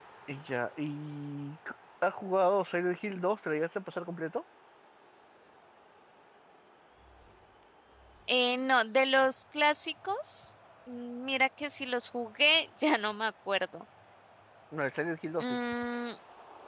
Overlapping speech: No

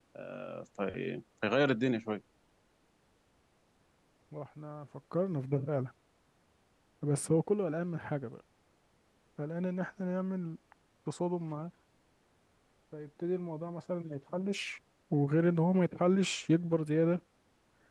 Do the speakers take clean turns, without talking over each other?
Yes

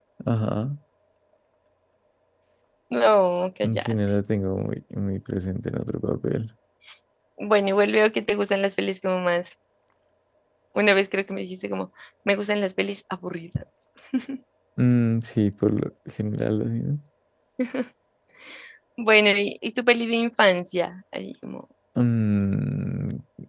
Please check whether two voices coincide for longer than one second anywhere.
No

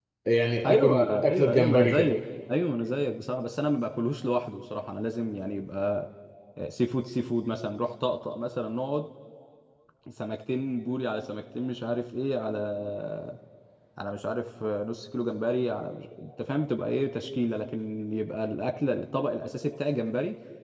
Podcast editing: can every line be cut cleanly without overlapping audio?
No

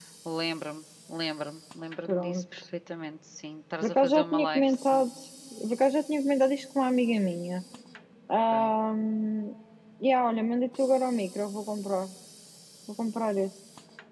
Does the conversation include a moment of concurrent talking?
Yes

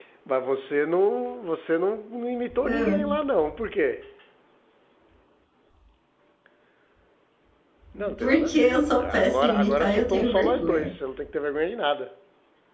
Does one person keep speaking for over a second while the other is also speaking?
Yes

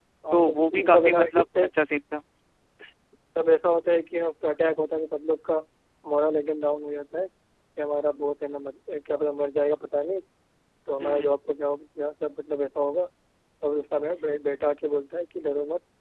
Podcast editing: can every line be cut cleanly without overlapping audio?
No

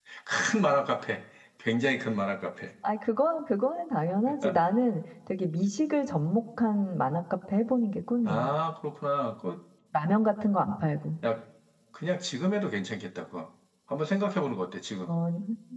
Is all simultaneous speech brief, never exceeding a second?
Yes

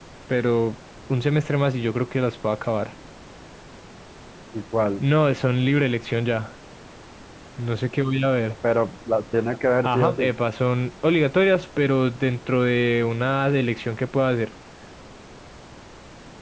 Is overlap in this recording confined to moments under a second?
Yes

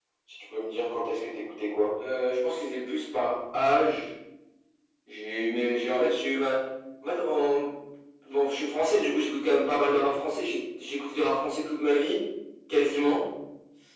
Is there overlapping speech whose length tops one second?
No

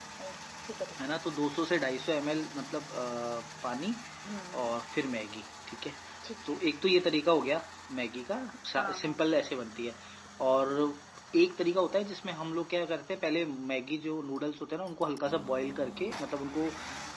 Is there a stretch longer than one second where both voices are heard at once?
No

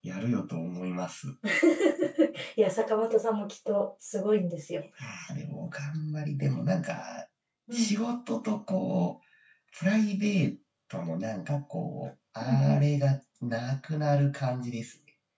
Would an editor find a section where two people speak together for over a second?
No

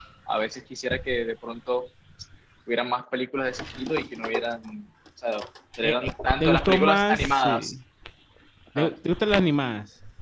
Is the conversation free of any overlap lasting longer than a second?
No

